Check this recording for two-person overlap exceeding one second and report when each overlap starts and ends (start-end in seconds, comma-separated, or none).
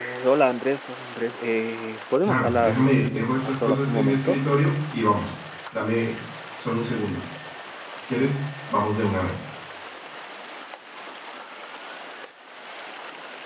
2.2-4.4